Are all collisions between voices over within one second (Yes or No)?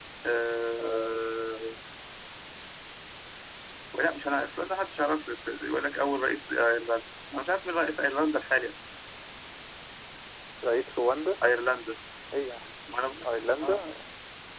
Yes